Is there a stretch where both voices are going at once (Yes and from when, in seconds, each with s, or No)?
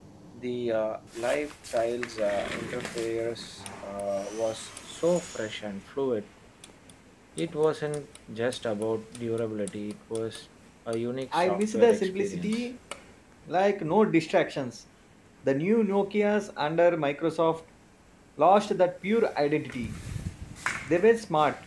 Yes, from 11.3 s